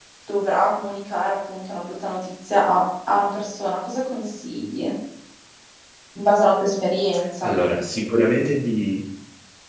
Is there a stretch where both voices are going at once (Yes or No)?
No